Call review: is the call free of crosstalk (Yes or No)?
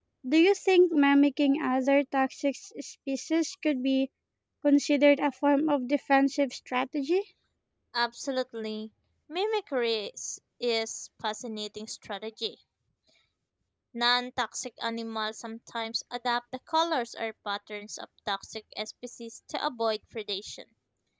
Yes